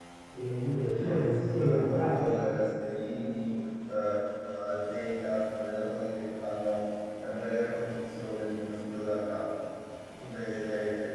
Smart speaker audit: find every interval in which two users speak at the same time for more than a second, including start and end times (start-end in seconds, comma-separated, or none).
0.8-2.4